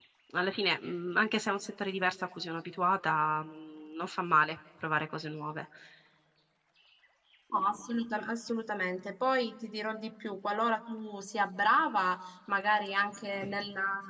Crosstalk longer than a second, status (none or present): none